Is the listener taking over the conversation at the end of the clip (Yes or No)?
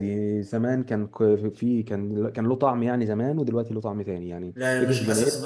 Yes